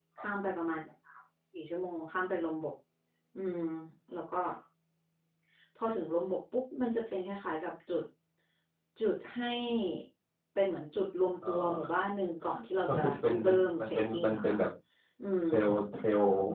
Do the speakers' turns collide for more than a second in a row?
Yes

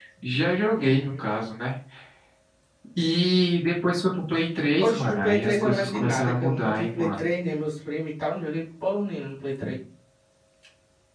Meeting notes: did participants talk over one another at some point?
Yes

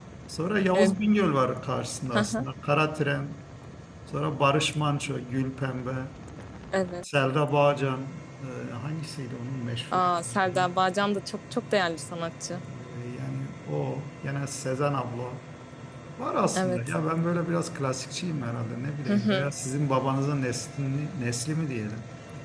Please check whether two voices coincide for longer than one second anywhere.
No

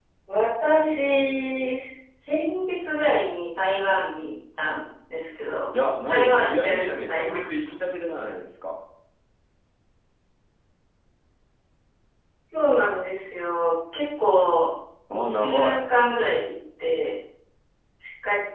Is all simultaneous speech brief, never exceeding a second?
No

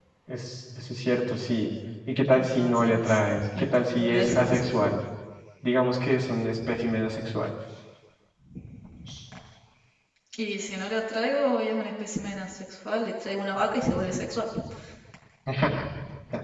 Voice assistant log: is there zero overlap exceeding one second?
No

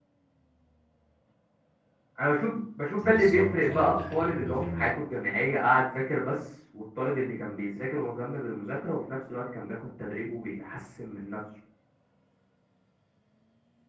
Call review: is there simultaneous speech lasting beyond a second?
Yes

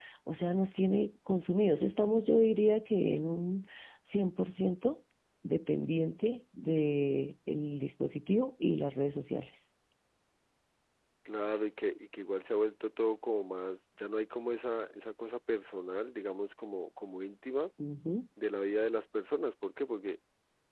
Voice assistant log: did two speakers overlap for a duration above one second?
No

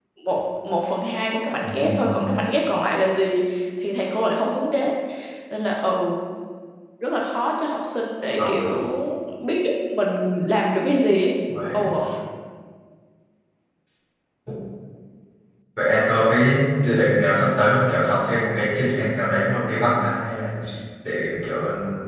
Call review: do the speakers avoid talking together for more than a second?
Yes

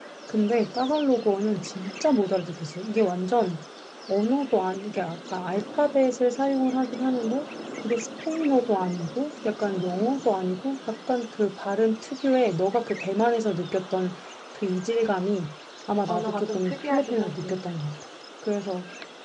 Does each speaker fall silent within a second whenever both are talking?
No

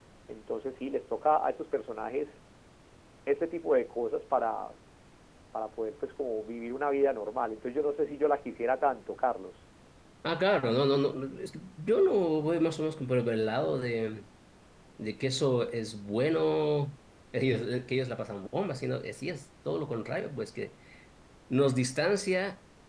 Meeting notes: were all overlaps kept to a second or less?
Yes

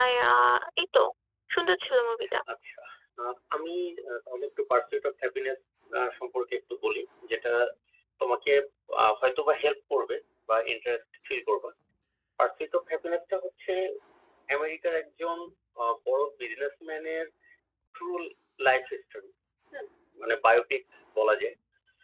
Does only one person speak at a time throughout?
Yes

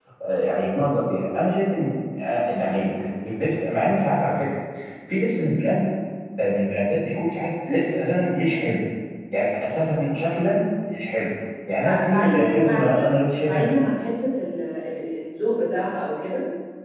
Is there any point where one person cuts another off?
Yes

